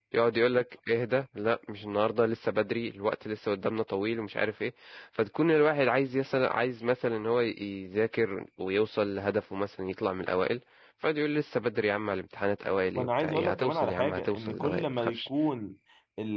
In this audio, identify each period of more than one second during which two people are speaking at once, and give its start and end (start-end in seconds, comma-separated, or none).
12.9-15.3